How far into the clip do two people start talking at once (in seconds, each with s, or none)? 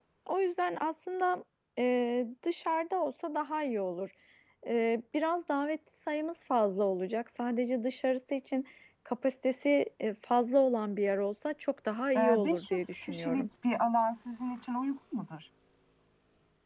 12.2 s